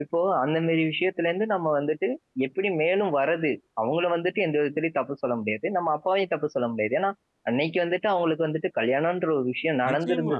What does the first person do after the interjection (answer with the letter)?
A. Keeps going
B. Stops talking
B